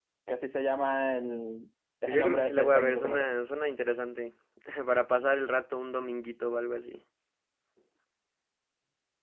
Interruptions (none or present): present